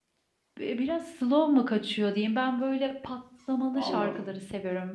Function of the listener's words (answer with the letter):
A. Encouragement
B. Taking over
A